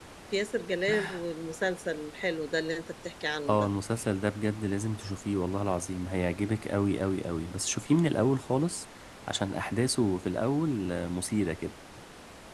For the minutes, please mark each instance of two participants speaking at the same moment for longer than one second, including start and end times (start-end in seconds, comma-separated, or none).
none